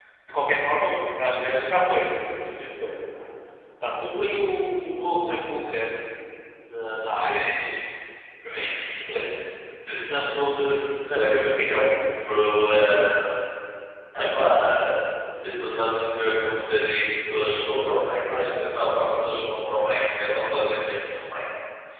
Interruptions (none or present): present